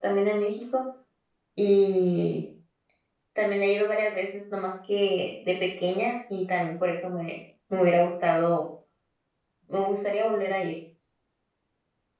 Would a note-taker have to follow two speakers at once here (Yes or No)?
No